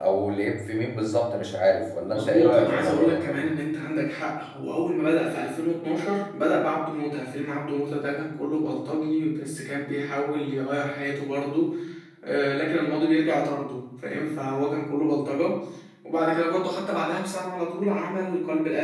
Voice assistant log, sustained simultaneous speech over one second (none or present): present